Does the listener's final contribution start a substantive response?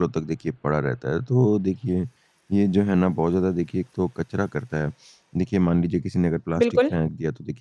No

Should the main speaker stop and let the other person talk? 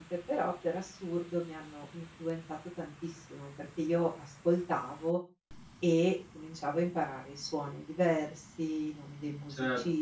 Yes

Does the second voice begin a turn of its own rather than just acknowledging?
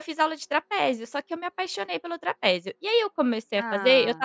No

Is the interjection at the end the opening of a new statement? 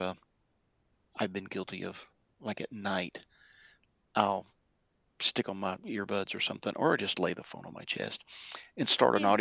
No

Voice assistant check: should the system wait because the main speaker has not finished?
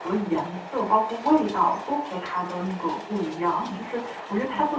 Yes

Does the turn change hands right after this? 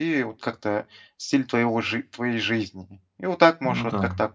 No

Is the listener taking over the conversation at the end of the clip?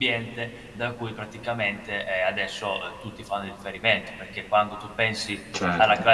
No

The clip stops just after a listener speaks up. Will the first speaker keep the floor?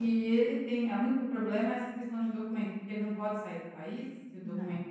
No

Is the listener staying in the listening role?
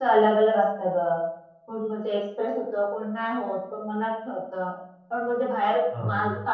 Yes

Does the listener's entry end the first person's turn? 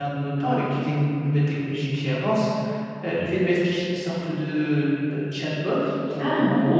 No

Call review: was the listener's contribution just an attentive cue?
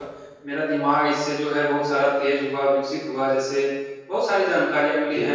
Yes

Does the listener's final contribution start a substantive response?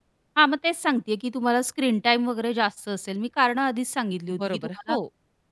Yes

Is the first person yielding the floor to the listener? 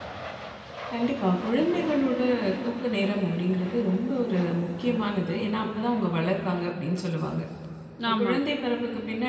No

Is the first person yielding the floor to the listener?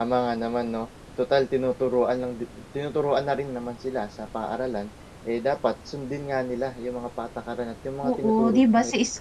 Yes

